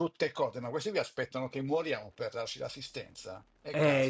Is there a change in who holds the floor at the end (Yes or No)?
Yes